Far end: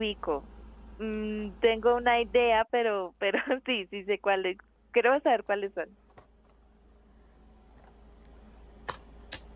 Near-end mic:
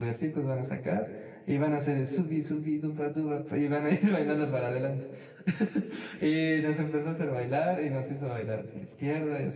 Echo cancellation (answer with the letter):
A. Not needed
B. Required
A